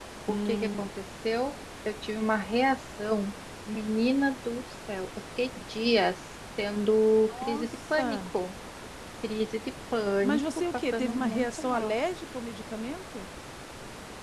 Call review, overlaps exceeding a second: present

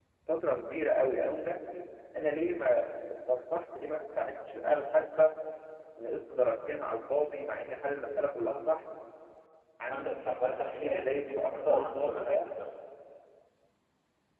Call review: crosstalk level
present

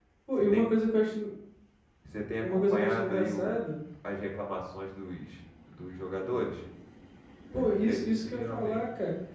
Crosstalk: present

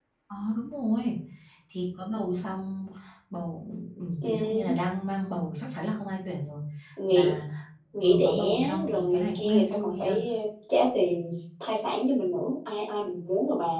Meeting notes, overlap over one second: present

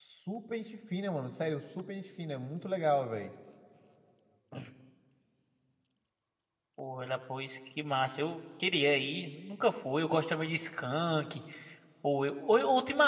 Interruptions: none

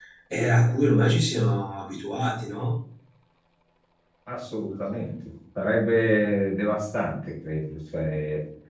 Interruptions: none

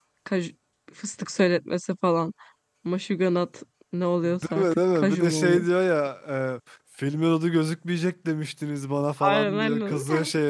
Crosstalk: present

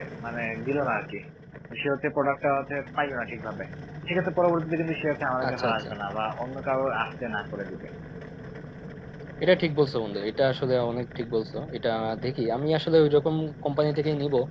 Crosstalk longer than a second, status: none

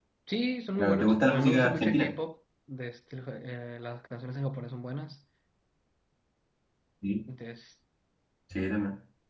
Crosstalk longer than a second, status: present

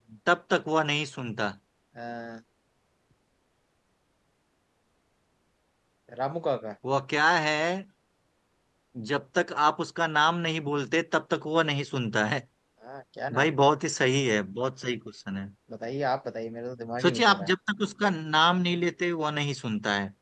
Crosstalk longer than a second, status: none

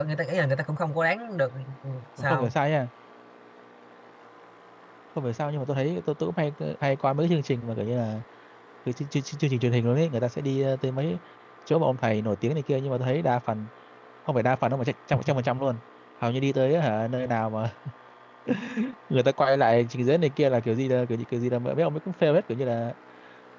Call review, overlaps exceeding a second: none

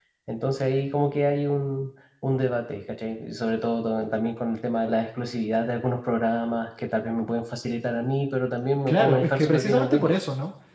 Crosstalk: present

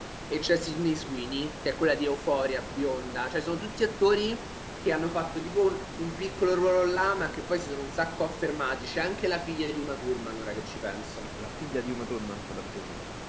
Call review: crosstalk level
none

